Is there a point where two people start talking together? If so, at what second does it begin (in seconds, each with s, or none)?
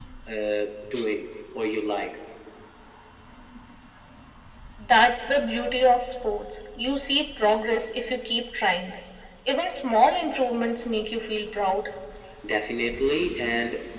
none